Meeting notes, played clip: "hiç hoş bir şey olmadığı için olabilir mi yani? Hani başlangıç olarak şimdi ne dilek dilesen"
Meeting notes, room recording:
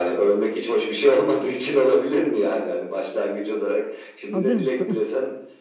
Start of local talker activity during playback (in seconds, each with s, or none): 4.3 s